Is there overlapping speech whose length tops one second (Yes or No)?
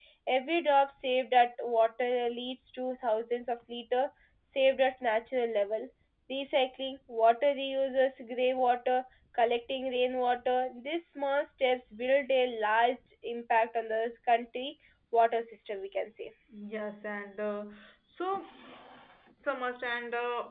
No